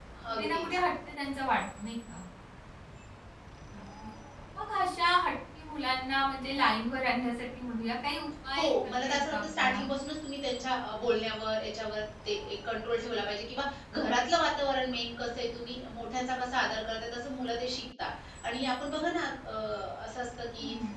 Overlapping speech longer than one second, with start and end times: 8.6-9.8

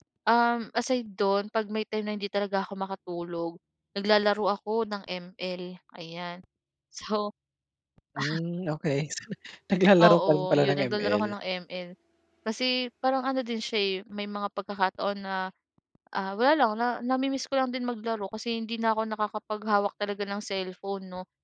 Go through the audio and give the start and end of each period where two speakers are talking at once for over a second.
10.0-11.3

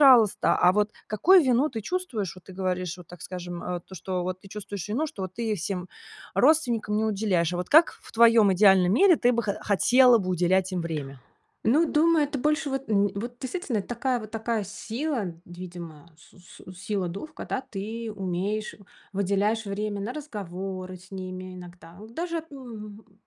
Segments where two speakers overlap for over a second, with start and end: none

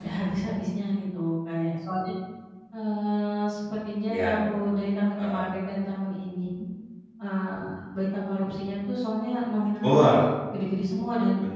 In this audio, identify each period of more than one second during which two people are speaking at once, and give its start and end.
none

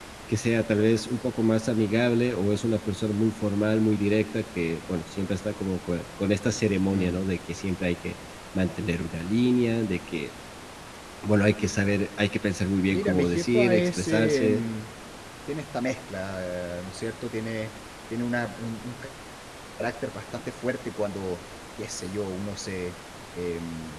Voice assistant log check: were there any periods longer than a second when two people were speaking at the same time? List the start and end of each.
12.9-14.6

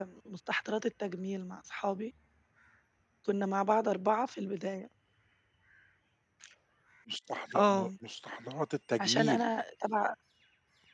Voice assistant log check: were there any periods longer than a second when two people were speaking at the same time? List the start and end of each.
none

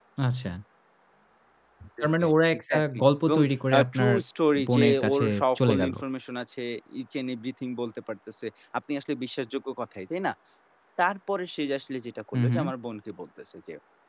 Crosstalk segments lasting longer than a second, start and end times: 2.0-3.4, 4.7-5.9

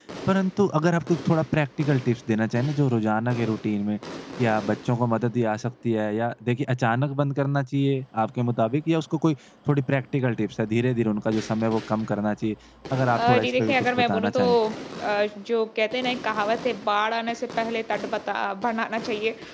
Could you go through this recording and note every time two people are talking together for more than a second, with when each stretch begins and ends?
13.1-14.4

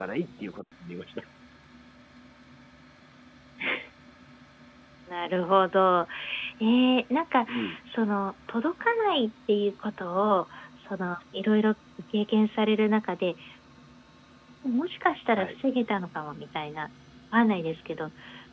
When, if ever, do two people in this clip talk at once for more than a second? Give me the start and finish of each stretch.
none

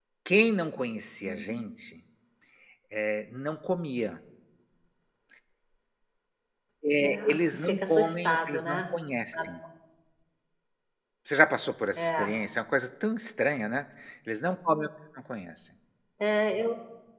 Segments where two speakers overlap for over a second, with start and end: 7.0-8.8

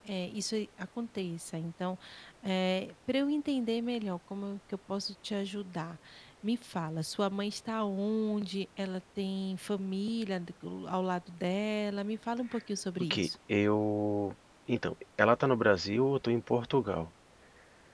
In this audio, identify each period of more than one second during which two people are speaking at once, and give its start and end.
none

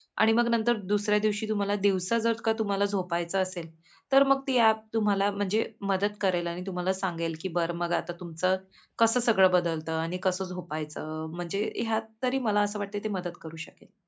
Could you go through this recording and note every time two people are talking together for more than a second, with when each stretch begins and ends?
none

